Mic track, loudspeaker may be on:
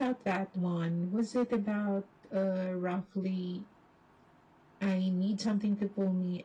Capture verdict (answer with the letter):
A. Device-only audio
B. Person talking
B